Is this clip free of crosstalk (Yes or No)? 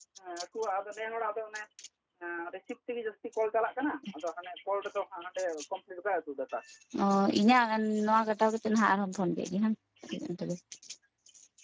Yes